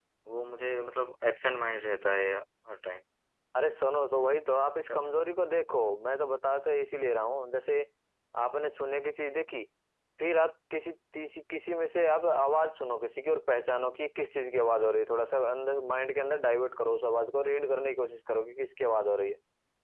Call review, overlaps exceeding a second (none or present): none